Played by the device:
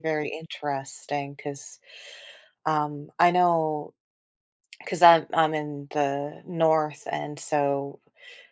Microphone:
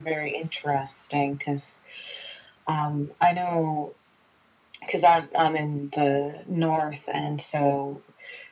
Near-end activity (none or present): none